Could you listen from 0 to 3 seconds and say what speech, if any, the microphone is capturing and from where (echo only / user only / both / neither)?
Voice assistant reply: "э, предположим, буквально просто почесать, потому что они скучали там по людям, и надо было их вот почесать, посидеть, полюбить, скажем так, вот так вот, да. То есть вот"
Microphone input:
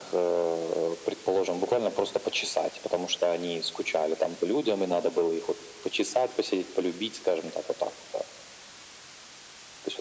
echo only